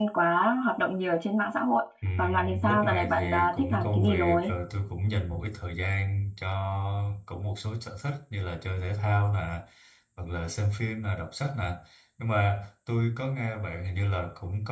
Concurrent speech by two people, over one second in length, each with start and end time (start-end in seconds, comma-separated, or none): 2.2-4.5